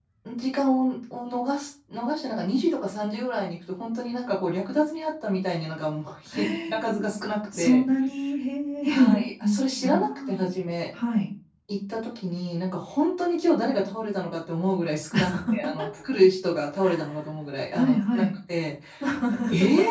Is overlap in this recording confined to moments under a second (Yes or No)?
No